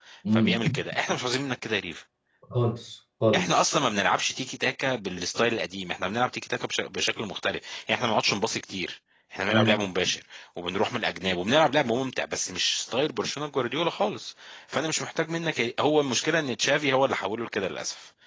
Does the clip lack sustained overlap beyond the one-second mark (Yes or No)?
Yes